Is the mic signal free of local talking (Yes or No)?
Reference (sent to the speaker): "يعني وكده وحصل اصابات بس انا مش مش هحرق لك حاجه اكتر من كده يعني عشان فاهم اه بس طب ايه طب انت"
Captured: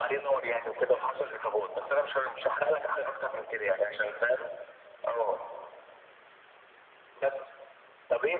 Yes